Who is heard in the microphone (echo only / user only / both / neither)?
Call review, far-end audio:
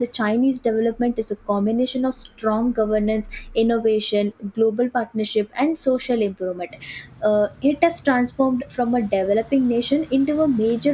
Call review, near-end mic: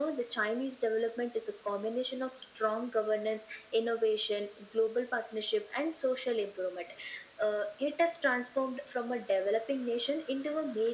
echo only